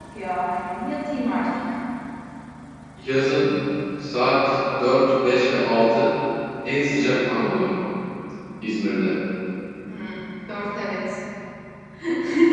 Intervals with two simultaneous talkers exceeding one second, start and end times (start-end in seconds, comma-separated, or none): none